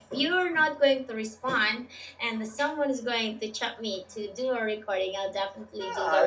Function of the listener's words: taking over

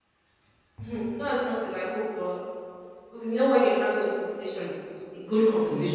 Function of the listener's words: listening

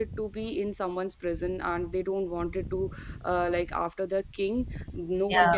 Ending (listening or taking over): listening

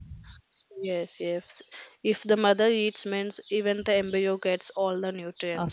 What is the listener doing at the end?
taking over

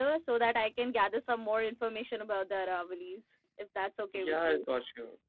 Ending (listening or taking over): taking over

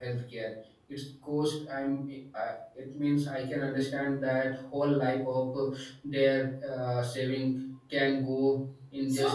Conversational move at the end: taking over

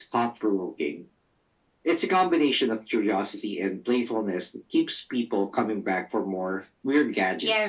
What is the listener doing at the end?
taking over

